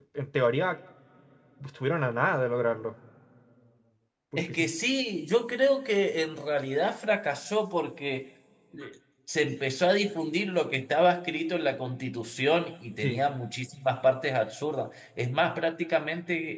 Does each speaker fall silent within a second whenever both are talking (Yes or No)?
Yes